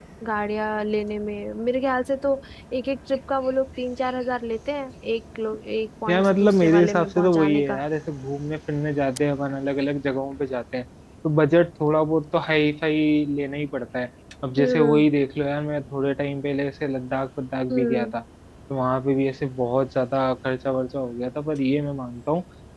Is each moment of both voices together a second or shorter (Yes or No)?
No